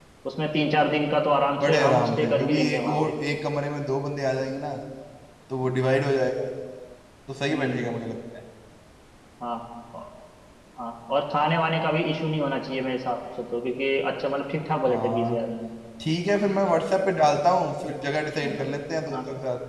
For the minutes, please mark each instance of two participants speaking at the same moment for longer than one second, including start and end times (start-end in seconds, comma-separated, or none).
1.6-3.1